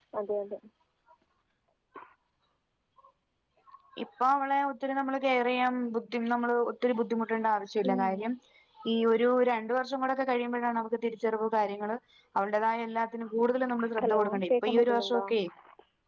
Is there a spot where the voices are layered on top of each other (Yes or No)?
Yes